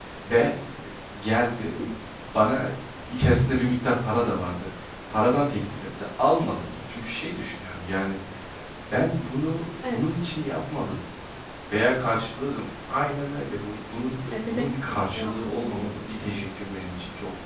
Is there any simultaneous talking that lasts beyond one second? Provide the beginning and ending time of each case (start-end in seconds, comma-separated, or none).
14.3-16.5